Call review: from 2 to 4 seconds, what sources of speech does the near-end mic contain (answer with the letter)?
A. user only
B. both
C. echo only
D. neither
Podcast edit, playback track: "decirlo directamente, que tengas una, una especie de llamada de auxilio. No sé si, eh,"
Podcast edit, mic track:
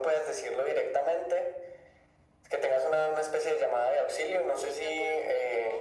C